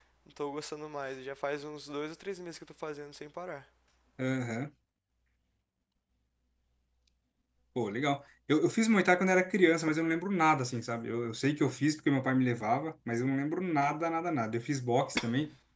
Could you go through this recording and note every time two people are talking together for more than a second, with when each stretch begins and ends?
none

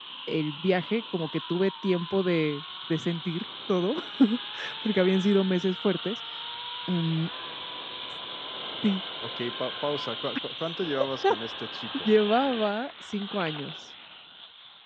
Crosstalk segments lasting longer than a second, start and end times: none

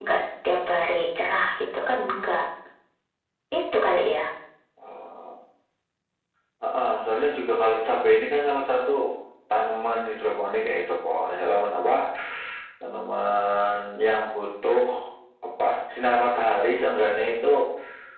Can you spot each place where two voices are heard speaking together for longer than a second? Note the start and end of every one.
none

